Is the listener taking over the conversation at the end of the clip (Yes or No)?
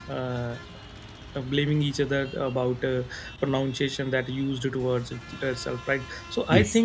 No